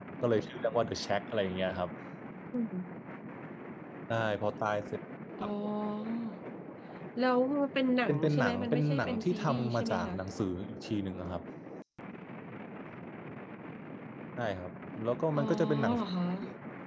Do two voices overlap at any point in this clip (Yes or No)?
Yes